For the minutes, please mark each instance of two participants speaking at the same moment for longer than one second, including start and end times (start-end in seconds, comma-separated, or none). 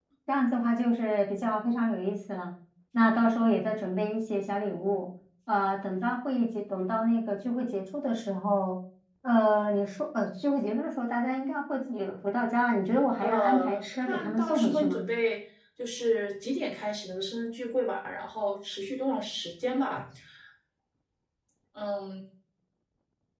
13.2-15.0